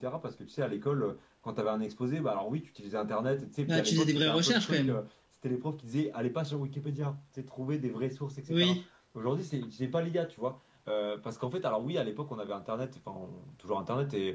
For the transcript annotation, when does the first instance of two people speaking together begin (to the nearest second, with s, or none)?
4 s